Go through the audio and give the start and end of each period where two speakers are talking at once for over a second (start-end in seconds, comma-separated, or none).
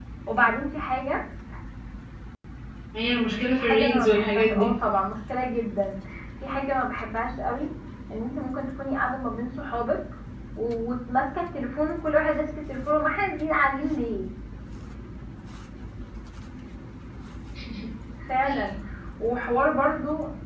3.5-4.8